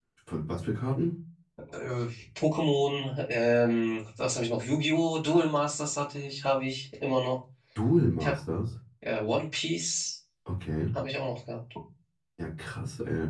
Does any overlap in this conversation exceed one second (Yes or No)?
No